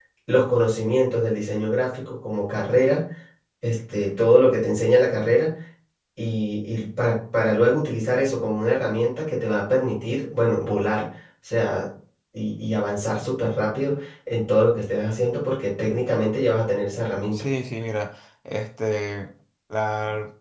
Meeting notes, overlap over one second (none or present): none